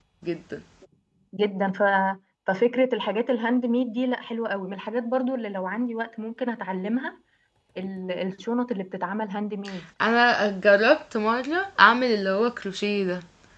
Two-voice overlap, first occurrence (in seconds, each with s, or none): none